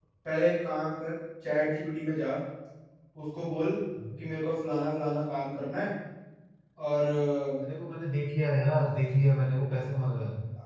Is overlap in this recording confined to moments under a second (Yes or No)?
Yes